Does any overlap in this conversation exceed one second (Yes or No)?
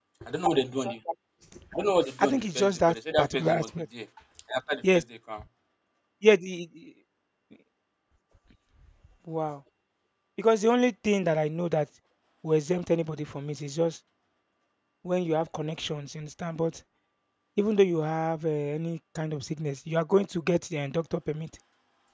Yes